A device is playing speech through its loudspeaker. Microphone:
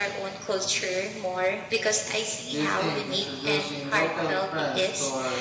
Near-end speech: present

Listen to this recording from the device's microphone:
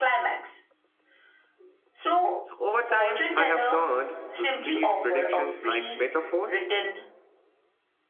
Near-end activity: present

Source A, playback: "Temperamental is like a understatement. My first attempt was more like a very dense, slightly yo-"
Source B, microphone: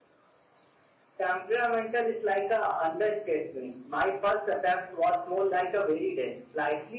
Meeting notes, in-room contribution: none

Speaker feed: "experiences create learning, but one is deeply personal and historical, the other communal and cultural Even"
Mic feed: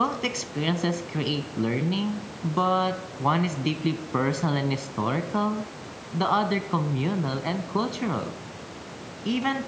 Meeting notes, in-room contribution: none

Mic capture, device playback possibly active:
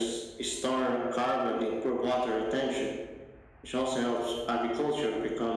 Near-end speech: none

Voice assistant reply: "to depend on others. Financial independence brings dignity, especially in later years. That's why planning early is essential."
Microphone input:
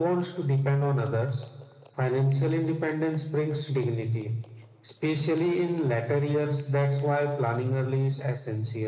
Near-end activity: none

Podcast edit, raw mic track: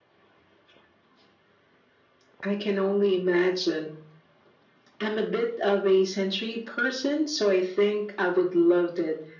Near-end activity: none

